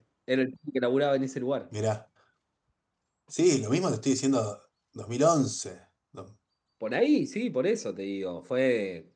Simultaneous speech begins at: none

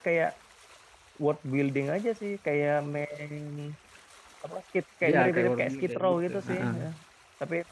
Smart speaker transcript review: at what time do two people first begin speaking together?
5.0 s

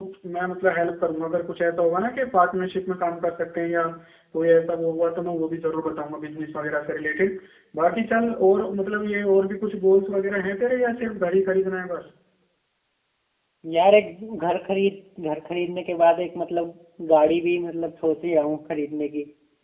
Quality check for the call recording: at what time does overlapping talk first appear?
none

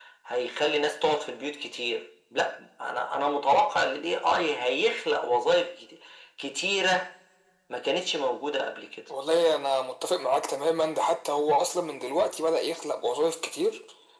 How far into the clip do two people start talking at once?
none

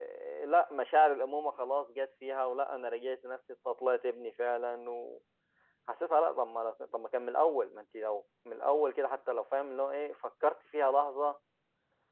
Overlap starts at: none

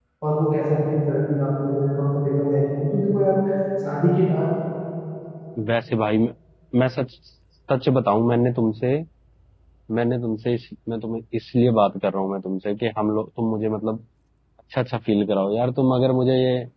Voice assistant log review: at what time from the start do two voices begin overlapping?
none

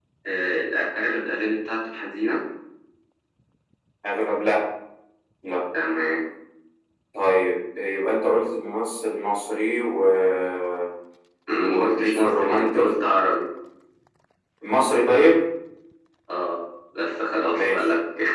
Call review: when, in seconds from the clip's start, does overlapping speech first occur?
11.6 s

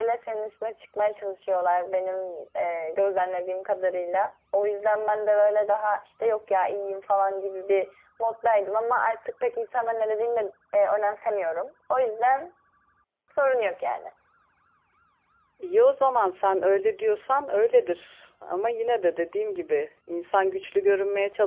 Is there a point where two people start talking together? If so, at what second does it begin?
none

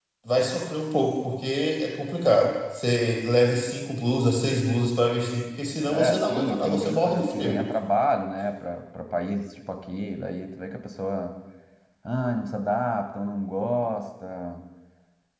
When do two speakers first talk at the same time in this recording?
5.9 s

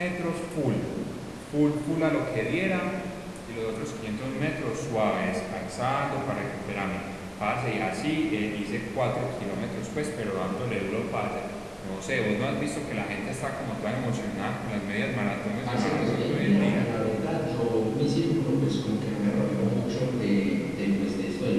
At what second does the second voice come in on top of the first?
15.6 s

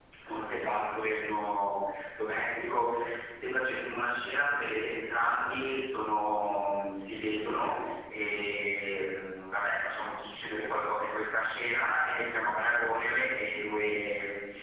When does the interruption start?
none

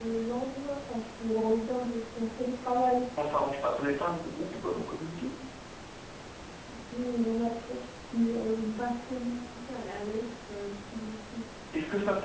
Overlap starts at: none

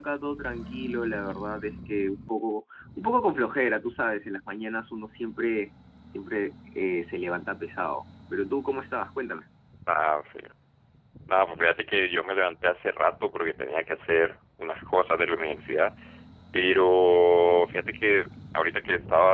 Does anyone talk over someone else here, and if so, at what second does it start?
none

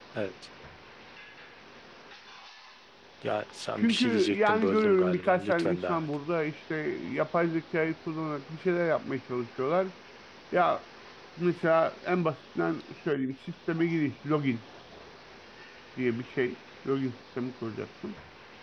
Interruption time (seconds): 3.8 s

